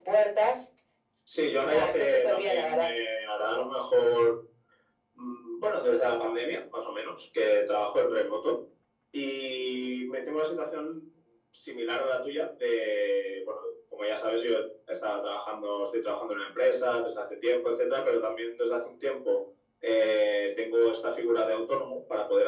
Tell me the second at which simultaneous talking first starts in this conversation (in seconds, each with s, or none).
1.4 s